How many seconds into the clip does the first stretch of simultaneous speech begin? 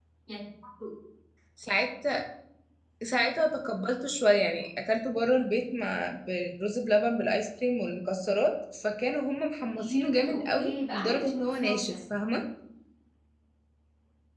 10 s

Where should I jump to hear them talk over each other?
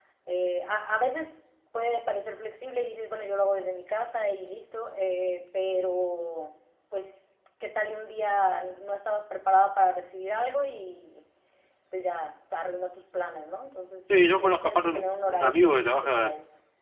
14 s

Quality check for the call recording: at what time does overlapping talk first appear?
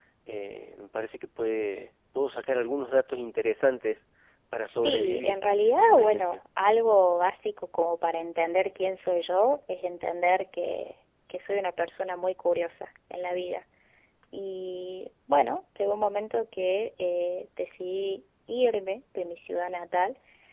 5 s

